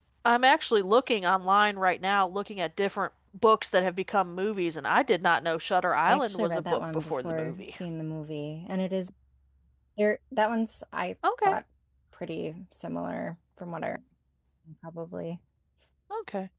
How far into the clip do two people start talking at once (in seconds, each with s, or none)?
6.1 s